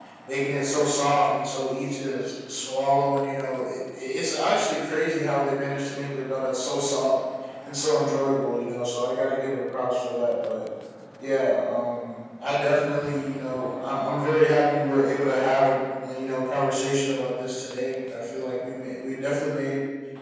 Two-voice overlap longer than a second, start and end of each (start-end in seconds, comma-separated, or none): none